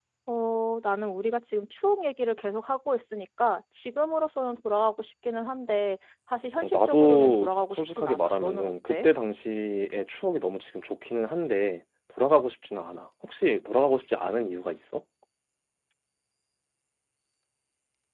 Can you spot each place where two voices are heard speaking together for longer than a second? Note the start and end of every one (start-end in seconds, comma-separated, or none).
6.6-9.1